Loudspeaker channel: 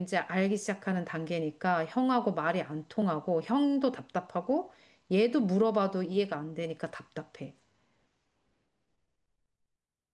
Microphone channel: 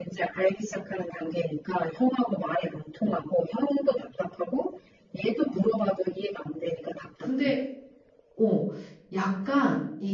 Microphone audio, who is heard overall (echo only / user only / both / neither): both